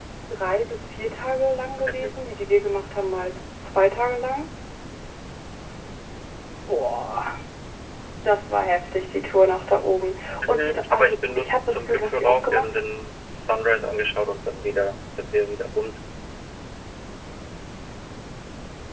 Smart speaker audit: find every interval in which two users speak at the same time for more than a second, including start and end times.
10.5-12.8

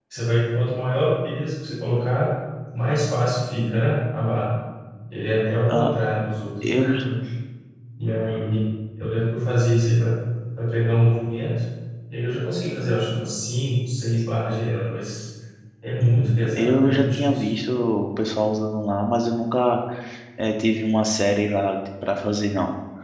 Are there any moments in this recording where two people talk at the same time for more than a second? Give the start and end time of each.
16.0-17.5

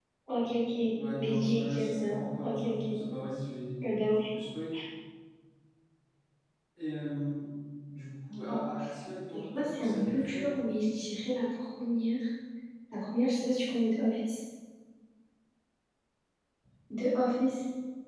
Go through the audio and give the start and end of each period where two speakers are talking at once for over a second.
1.2-3.0, 9.3-10.7

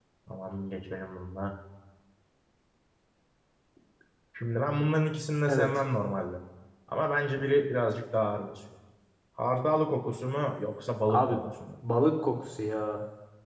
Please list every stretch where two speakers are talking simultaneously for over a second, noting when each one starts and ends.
none

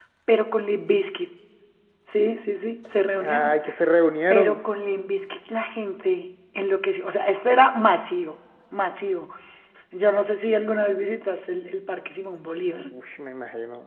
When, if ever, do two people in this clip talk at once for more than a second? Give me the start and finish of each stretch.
none

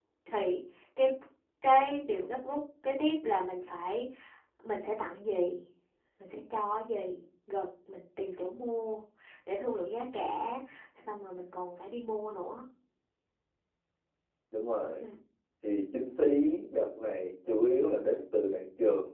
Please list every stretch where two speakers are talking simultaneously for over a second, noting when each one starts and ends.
none

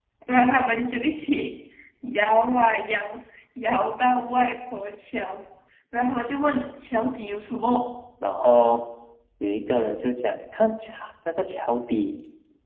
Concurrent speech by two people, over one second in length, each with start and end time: none

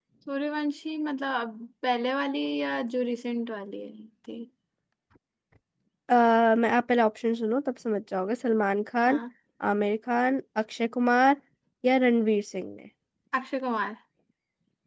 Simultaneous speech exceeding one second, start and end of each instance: none

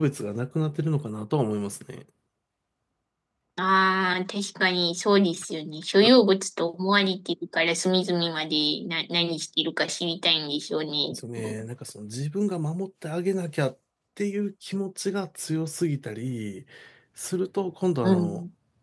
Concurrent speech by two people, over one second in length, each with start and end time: none

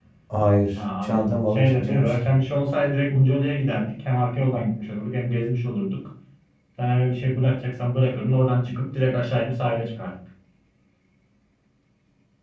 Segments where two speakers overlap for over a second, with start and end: 0.8-2.1

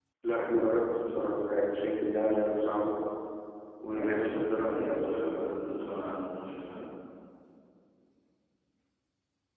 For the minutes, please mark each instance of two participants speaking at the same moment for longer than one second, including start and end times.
3.9-5.7

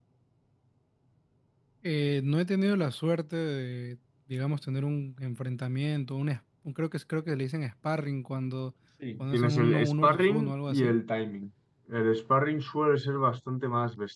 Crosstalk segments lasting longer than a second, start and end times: 9.2-11.0

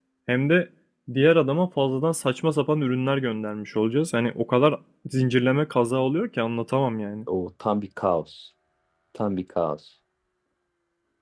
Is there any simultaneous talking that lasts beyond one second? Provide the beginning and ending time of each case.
none

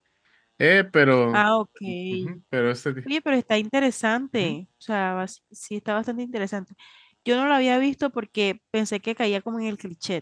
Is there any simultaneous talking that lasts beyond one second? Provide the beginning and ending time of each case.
none

